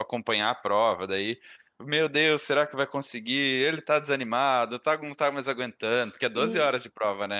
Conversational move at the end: taking over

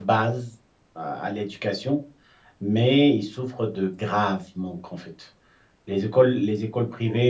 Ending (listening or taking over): listening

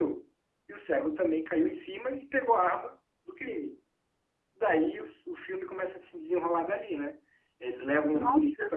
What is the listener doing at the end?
listening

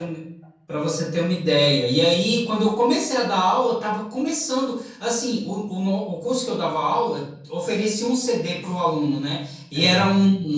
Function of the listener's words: listening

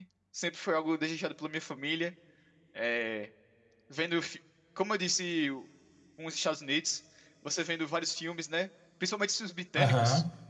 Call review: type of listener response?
listening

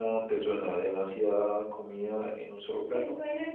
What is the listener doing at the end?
taking over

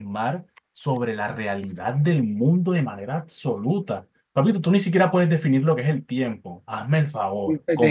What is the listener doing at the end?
taking over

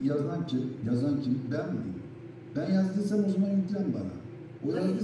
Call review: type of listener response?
taking over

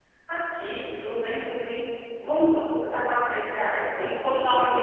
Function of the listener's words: listening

